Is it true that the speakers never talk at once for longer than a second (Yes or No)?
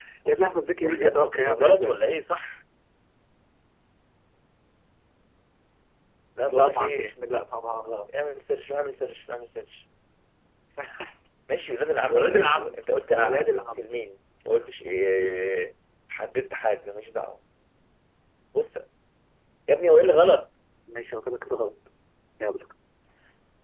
No